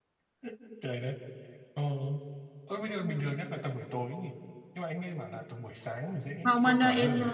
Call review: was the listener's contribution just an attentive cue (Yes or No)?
No